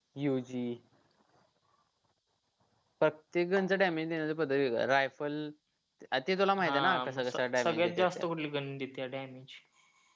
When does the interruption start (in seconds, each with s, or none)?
6.6 s